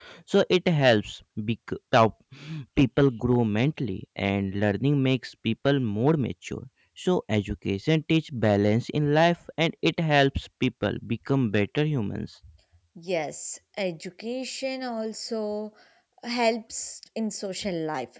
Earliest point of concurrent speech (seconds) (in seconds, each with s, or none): none